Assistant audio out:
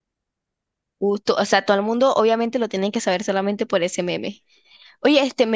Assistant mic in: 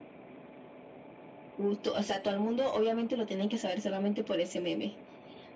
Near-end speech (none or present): none